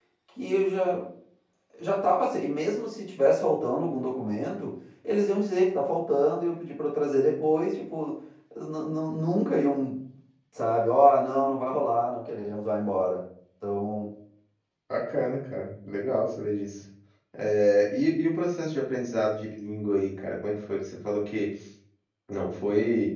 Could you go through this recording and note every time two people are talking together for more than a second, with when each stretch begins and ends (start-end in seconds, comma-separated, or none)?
none